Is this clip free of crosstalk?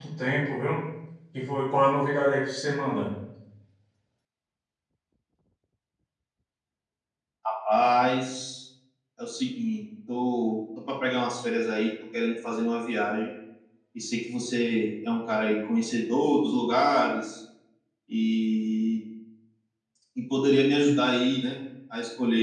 Yes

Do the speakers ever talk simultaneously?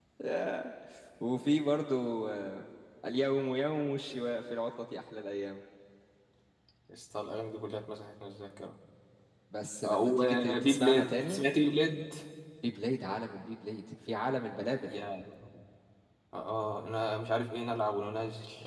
Yes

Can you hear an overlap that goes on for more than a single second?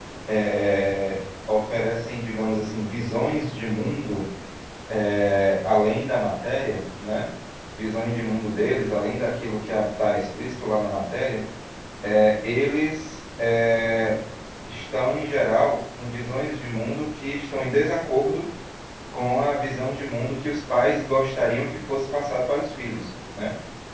No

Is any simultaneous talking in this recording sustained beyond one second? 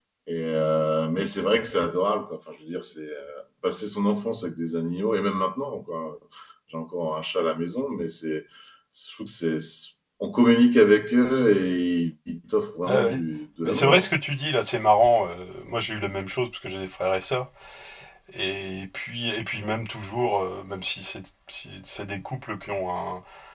No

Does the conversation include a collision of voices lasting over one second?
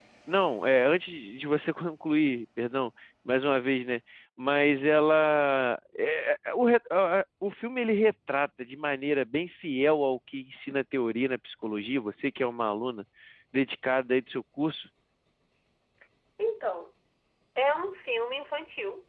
No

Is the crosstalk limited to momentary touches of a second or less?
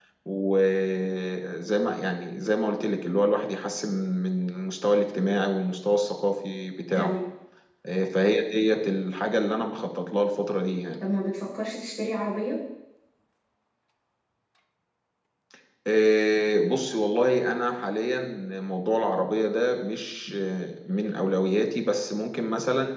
Yes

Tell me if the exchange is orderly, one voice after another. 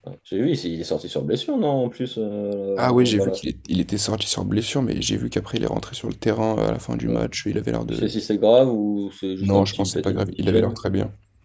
No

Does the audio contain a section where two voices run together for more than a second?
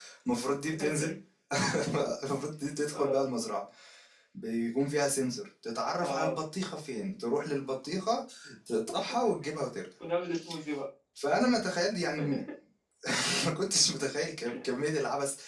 No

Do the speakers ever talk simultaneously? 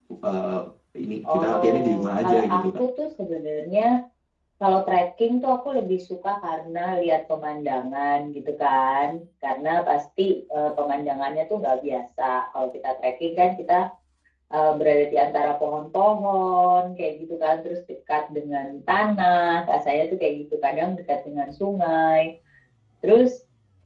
Yes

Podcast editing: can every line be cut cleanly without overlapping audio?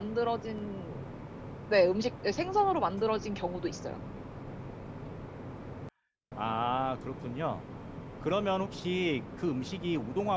Yes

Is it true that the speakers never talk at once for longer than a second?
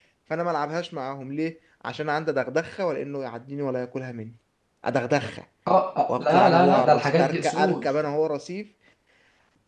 No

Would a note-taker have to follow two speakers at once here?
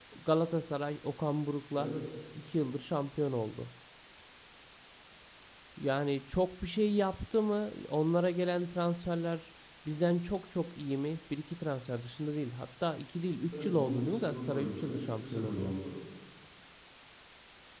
Yes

